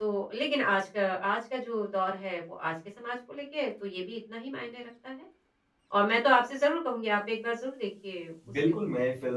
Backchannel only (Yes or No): No